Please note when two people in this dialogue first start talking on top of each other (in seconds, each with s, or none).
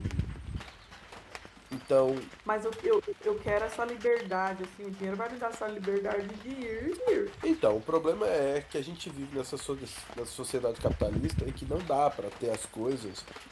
none